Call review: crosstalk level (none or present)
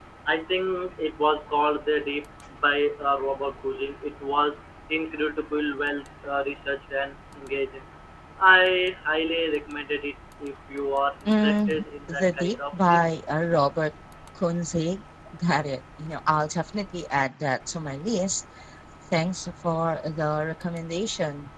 present